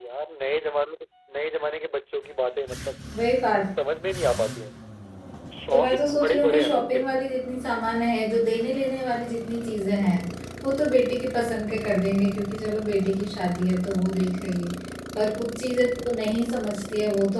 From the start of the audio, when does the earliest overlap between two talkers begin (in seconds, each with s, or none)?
5.7 s